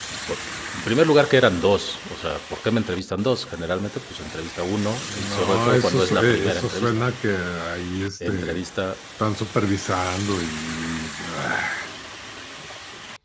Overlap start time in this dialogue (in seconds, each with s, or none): 5.0 s